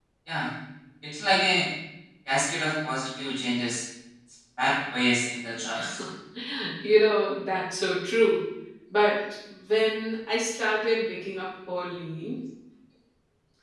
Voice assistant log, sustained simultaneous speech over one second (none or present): none